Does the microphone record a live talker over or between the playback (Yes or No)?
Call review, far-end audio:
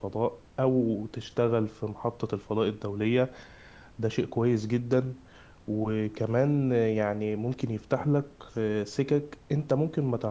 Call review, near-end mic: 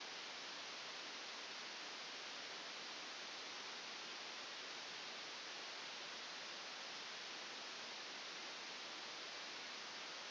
No